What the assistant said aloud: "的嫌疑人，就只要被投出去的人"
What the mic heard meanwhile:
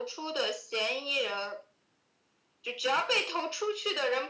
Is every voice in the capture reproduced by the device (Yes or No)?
Yes